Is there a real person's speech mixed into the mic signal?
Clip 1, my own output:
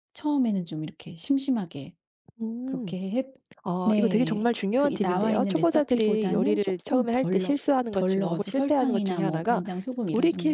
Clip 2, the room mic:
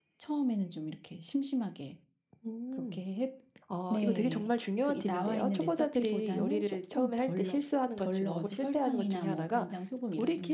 No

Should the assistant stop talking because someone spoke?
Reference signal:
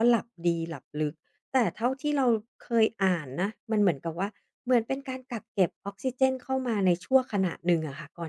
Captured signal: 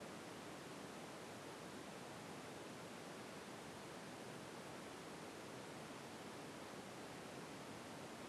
No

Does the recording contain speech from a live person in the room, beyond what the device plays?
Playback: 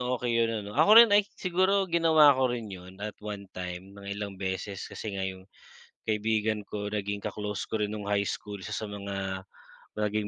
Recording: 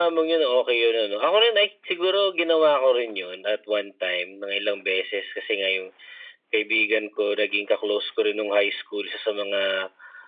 No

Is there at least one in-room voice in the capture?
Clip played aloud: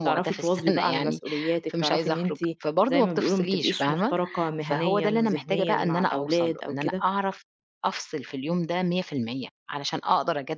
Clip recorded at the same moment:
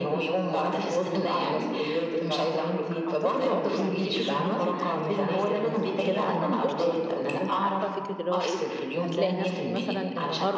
Yes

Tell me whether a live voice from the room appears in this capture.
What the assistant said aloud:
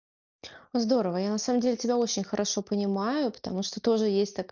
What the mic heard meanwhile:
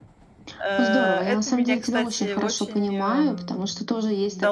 Yes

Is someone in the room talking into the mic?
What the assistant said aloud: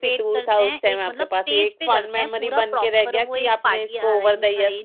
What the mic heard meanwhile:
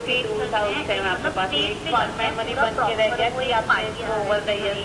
No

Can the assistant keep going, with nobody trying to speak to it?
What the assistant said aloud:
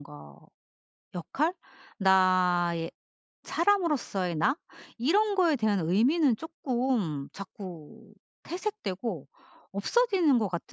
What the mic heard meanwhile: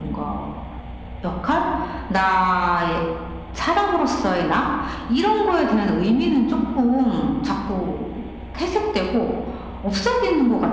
Yes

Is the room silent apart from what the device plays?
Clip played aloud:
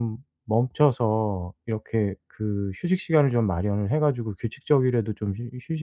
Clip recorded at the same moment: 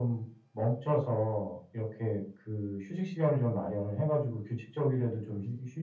Yes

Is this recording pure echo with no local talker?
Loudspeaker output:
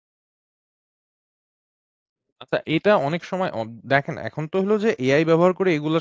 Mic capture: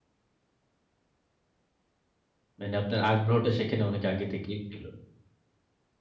No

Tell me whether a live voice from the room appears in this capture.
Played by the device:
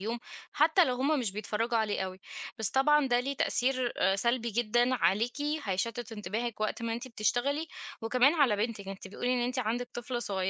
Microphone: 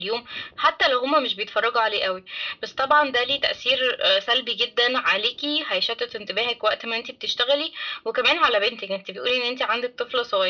No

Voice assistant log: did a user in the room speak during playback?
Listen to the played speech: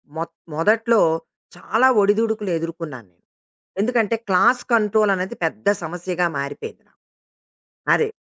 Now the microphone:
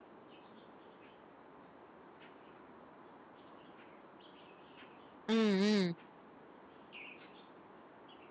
Yes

